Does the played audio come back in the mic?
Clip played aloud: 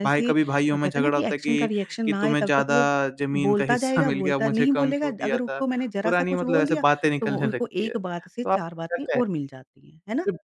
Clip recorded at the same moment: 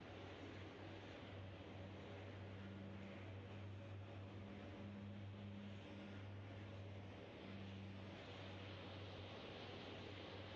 No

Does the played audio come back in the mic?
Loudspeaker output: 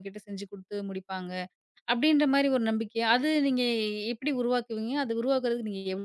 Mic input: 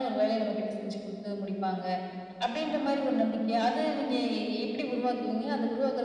Yes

